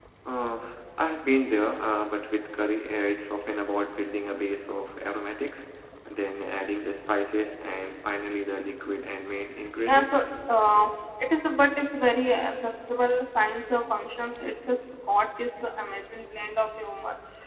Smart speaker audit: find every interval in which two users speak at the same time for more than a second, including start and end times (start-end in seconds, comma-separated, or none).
none